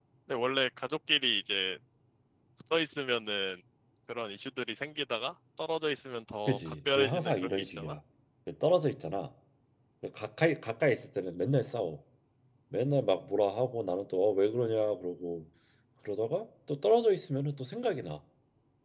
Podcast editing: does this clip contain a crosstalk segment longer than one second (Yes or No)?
Yes